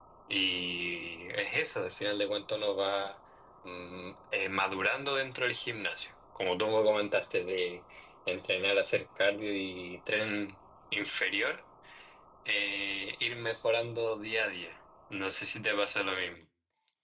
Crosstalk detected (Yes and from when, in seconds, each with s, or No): No